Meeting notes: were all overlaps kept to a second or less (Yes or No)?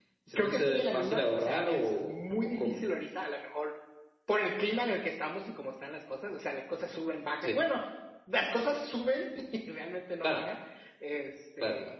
No